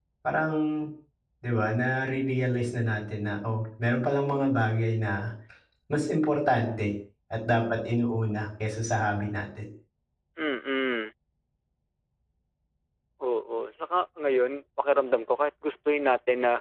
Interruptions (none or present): none